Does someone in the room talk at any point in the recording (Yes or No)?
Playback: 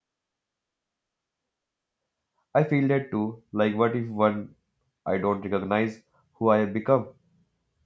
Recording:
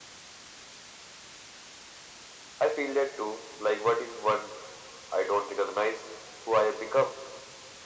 No